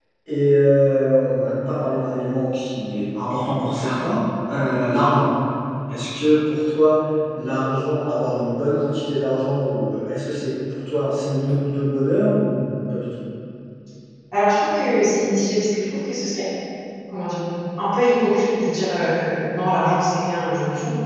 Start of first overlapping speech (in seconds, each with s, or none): none